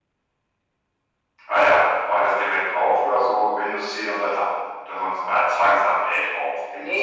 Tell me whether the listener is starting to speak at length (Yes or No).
Yes